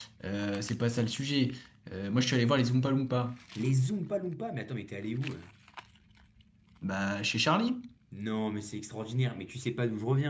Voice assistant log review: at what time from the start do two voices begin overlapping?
none

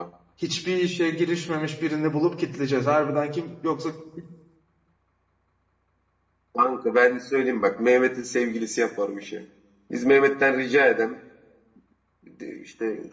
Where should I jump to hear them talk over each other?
none

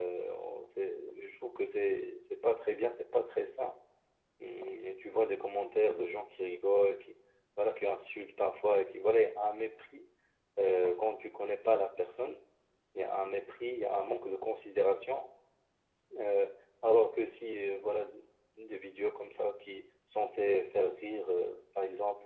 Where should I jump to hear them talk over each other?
none

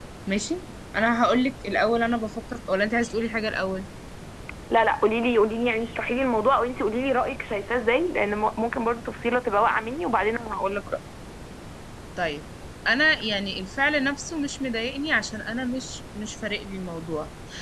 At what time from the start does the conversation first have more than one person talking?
none

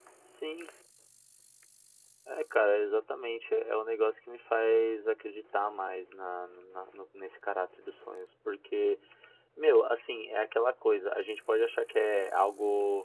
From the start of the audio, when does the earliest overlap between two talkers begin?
none

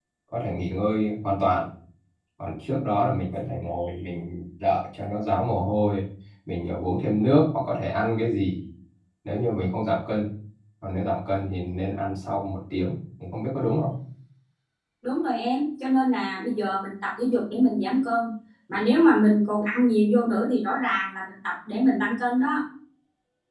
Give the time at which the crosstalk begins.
none

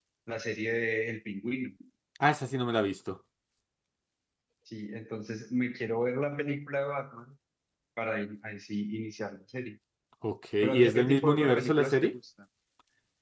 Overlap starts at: 10.6 s

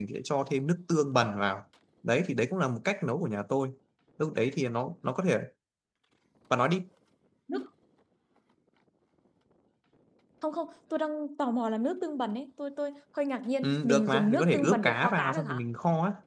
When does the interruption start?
13.6 s

